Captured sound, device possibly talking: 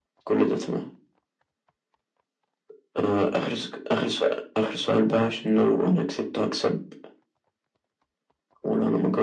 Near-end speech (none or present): none